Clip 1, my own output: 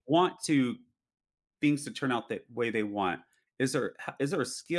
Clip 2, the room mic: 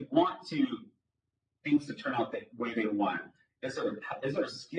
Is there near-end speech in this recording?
No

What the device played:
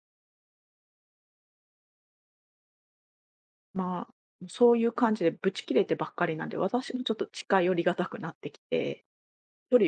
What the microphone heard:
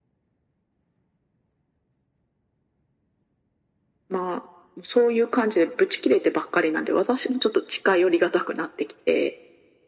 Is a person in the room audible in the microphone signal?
No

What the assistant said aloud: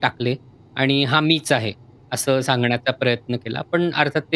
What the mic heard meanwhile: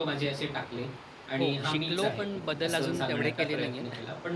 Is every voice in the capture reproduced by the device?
No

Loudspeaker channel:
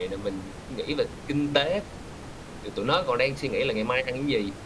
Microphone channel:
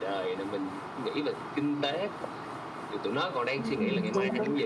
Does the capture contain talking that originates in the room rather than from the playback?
Yes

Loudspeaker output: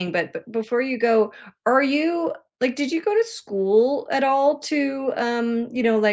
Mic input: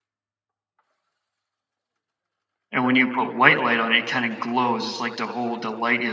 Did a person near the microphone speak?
Yes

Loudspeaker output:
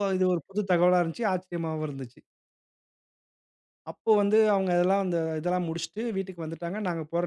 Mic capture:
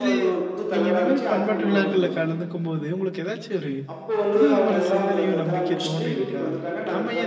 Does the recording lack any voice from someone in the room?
No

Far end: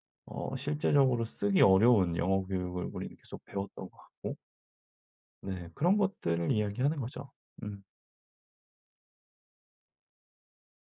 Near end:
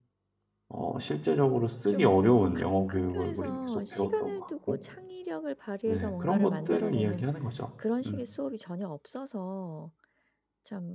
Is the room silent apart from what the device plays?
No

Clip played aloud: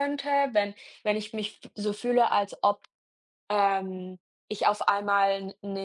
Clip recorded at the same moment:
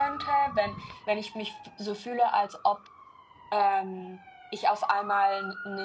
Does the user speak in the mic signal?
No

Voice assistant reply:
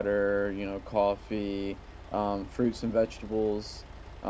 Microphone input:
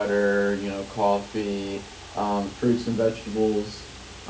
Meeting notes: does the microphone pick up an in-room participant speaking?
No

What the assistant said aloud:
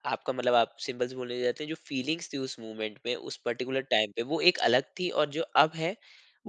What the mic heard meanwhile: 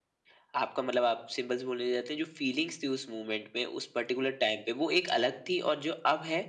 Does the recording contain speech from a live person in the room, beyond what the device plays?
No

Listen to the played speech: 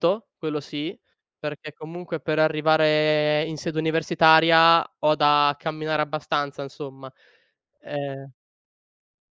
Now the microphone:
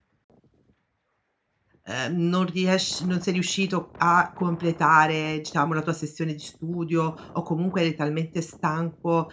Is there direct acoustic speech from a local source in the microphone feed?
Yes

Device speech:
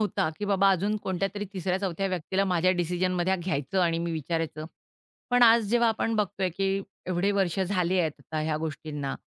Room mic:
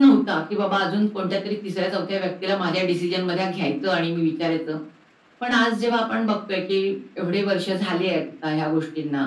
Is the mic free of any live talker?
Yes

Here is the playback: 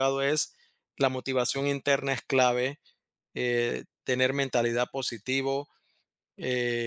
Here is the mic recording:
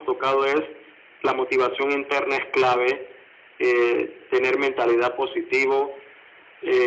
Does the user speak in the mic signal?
No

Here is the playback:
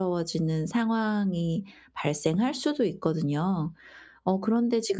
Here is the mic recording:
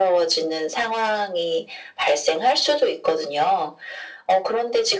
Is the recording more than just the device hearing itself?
No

